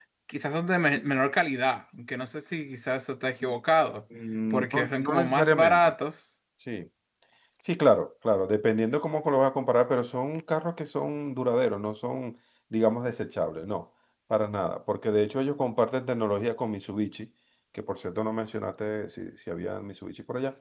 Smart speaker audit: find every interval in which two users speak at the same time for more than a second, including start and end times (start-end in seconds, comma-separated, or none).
4.5-5.9